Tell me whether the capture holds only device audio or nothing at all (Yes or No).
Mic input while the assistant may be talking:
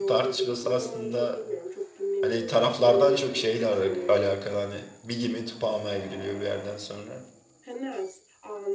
No